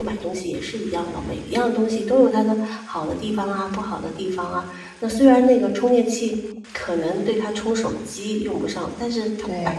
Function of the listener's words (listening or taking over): listening